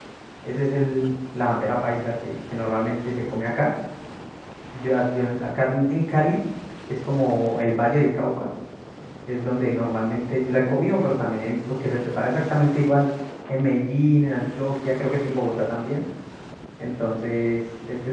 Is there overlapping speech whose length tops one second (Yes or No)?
No